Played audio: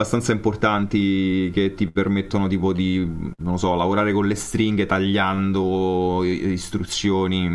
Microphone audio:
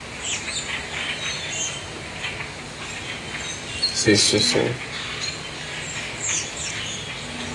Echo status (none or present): none